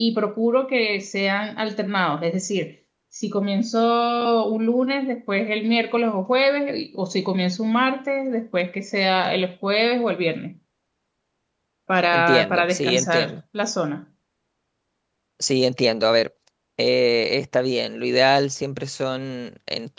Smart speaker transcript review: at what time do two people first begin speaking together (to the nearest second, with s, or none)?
12 s